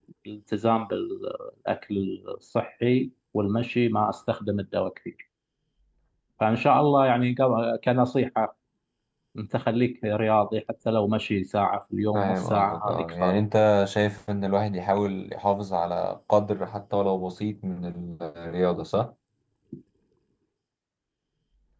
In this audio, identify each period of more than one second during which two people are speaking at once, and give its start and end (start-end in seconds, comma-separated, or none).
12.1-13.4